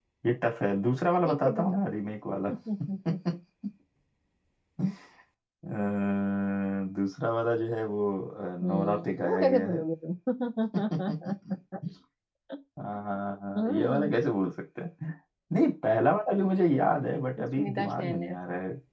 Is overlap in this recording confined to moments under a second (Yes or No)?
No